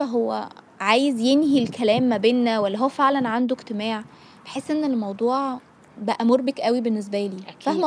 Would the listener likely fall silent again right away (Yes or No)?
No